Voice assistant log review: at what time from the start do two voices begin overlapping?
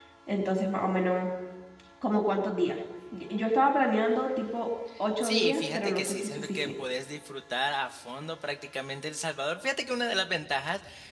5.2 s

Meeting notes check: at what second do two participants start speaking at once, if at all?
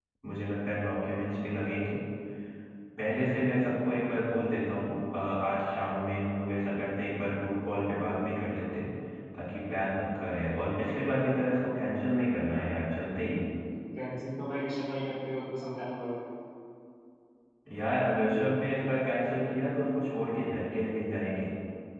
none

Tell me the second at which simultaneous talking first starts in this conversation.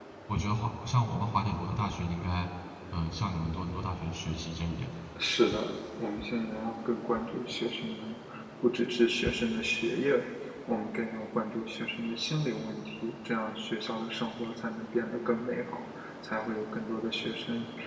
none

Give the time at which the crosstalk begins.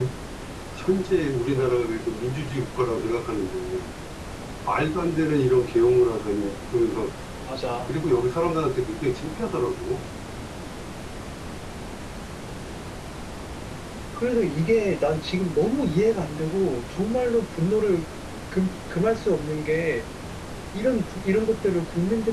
none

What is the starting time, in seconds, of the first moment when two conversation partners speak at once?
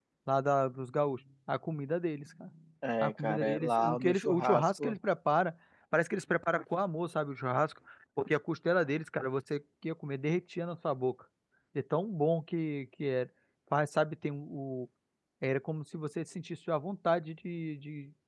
3.0 s

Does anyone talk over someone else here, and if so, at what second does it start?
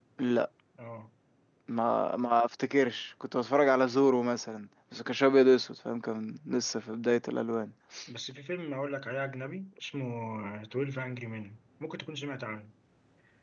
none

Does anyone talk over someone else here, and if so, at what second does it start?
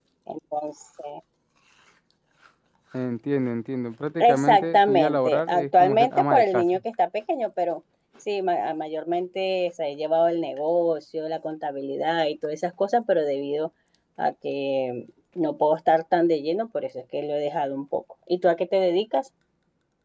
4.2 s

